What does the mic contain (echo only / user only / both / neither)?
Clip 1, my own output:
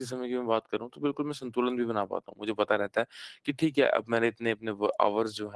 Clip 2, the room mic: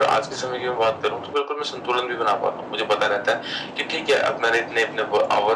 echo only